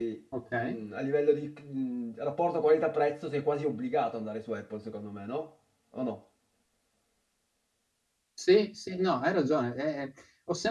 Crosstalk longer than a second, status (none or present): none